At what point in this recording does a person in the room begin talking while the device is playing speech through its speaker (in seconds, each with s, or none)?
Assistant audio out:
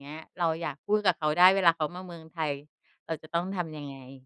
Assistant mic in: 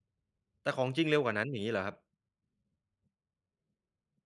0.6 s